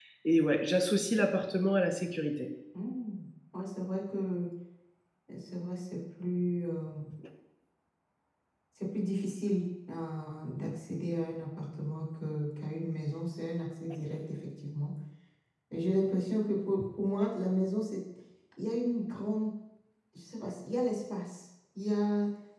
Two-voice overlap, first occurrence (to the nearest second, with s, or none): none